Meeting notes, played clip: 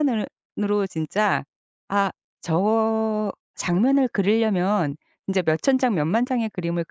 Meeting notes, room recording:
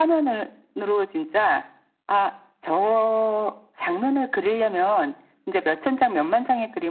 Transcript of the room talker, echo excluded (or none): none